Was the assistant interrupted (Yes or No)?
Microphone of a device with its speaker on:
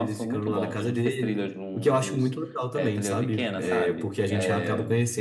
No